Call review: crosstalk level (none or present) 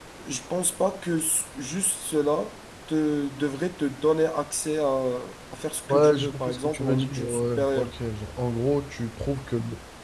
present